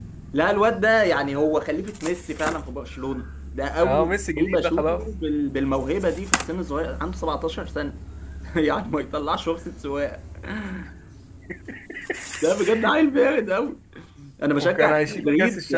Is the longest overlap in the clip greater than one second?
Yes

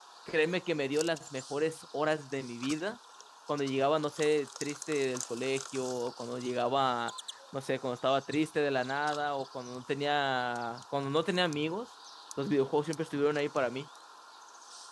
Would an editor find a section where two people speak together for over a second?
No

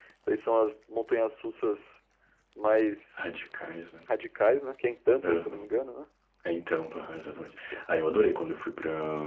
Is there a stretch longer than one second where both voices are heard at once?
No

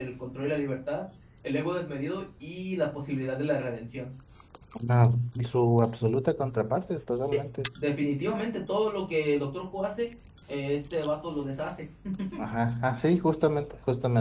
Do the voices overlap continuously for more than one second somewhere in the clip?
No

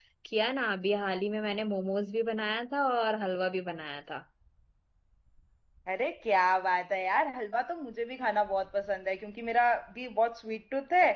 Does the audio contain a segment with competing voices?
No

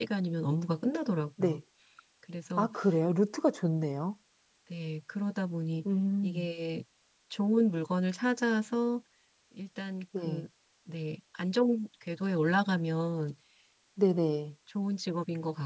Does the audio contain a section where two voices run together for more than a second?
No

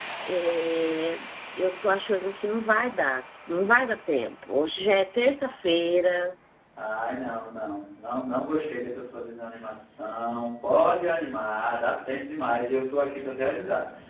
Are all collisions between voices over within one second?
Yes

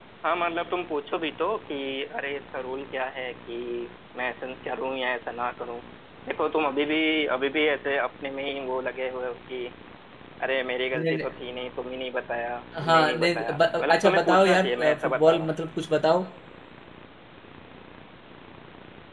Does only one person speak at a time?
No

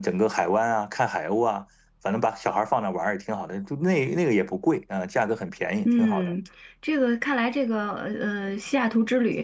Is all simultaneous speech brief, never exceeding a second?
Yes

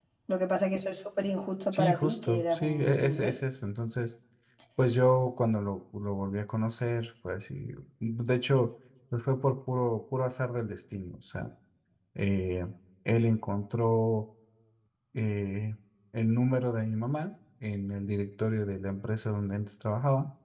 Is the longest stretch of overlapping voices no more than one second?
No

